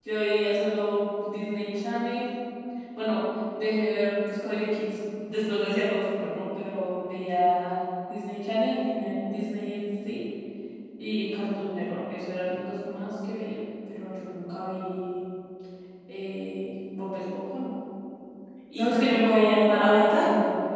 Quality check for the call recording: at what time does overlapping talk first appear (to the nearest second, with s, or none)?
19 s